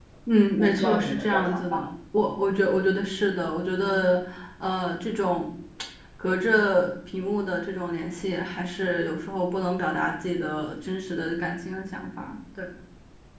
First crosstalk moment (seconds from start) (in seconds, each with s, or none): 0.6 s